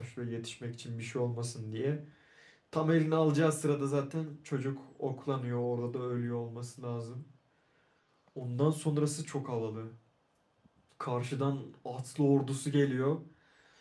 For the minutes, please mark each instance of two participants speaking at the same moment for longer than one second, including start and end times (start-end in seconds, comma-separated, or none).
none